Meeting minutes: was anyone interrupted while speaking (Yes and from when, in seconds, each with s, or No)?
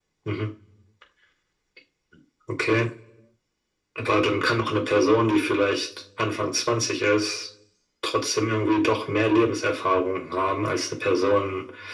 No